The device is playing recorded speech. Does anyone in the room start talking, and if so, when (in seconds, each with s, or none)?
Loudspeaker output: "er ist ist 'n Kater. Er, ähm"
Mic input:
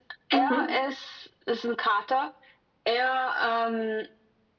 0.3 s